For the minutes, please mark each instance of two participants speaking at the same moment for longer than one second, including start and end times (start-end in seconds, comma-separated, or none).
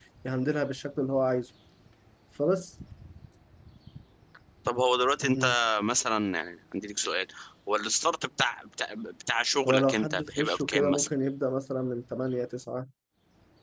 9.7-11.1